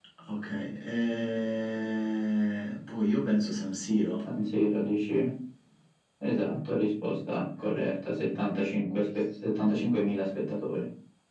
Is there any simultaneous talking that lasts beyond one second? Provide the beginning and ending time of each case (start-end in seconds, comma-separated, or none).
none